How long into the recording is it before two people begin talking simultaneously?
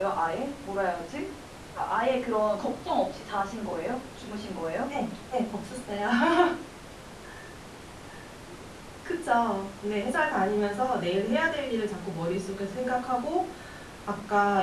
none

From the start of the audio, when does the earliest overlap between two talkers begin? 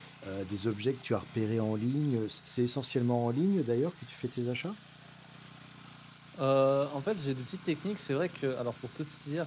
none

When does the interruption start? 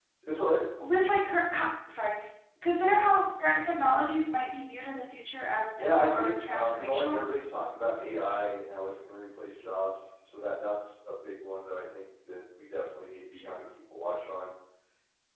5.8 s

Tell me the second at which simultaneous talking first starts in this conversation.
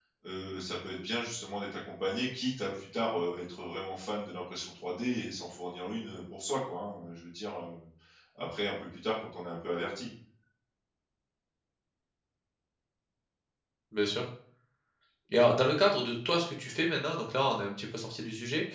none

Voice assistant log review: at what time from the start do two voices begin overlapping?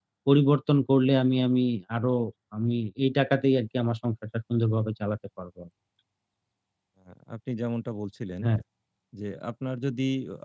none

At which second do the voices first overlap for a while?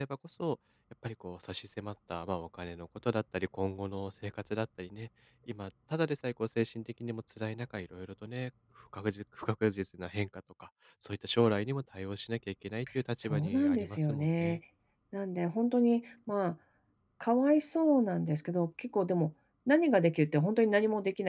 13.2 s

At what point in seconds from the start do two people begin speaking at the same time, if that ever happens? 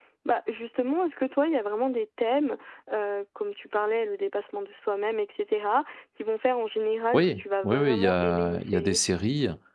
7.1 s

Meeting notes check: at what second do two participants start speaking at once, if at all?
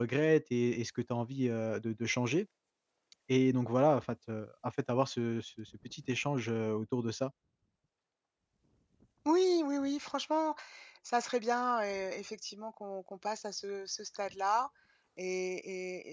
none

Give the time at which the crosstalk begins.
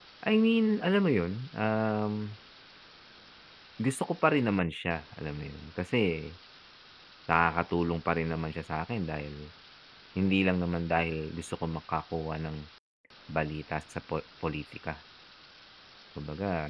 none

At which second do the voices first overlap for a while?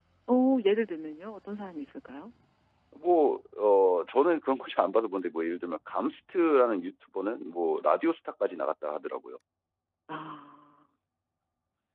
none

